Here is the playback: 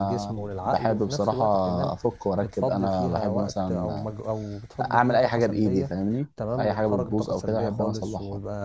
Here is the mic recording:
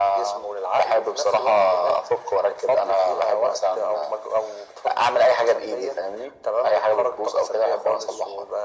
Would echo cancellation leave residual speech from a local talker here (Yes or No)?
No